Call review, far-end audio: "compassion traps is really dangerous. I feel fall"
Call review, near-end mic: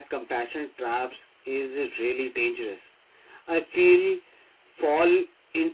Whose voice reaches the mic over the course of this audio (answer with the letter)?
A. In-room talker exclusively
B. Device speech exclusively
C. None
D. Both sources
B